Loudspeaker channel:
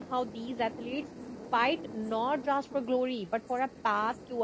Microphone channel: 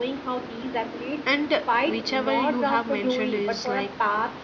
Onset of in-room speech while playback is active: 1.2 s

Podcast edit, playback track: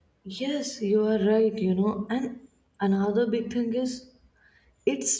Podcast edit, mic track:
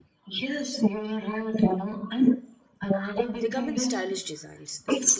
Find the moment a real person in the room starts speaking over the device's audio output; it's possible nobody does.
3.4 s

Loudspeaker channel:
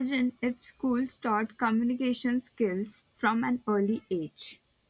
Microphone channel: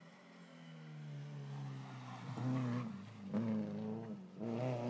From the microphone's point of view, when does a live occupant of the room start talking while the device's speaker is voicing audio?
none

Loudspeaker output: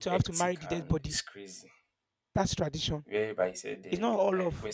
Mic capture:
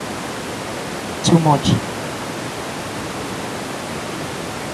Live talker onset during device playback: 1.2 s

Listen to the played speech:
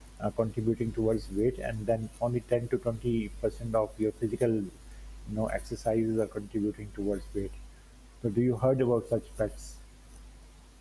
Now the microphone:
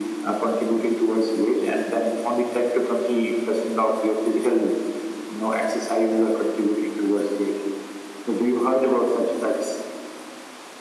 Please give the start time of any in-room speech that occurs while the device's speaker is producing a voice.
none

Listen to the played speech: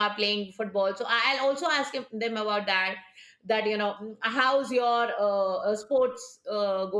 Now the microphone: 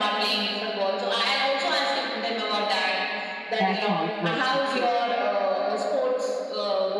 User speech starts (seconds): 3.6 s

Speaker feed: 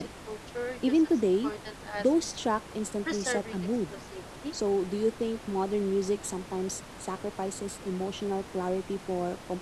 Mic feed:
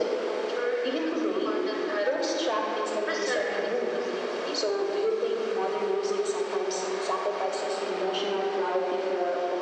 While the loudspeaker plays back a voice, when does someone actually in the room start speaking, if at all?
none

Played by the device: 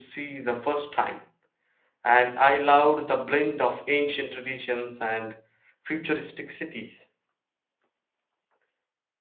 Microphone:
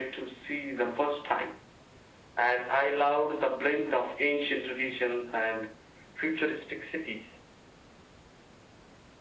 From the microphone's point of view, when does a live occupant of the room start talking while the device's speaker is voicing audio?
none

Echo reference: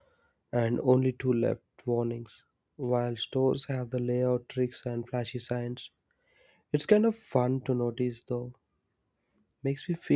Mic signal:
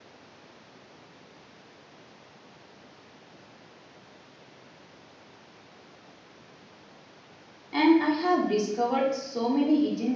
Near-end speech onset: 7.7 s

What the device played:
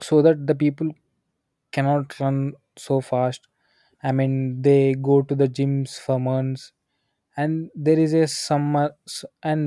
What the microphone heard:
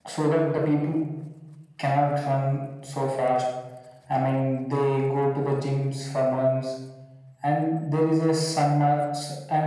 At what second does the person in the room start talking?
none

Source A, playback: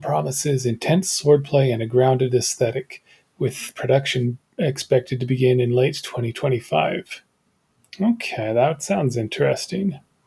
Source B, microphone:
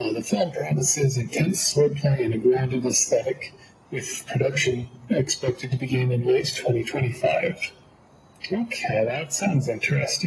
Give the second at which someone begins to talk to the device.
none

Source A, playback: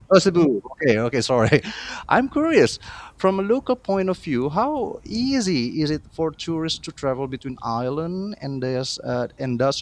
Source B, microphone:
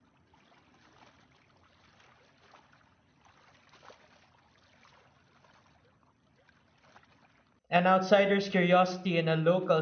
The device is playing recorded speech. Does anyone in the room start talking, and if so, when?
7.7 s

